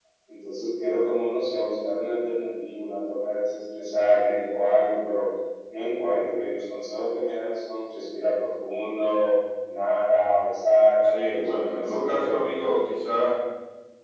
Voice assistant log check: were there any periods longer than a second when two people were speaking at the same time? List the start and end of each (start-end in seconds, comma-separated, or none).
11.0-12.6